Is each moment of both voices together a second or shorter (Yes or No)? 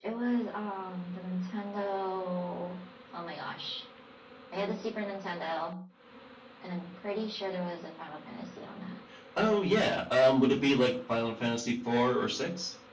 Yes